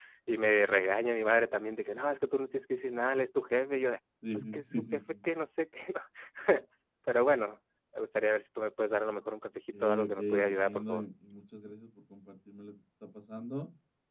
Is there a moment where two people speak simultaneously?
Yes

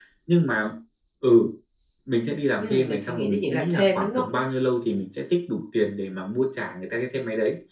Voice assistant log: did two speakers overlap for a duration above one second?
Yes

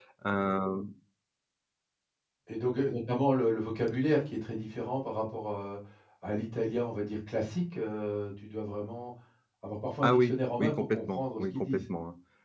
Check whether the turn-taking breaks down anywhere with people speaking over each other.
Yes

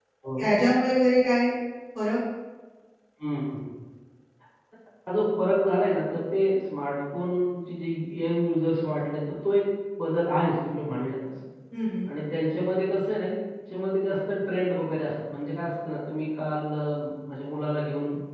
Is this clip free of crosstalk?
Yes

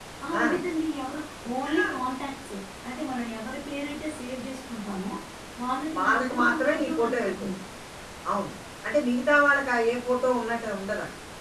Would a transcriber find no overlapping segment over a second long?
No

